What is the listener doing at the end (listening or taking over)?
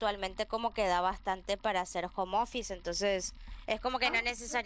listening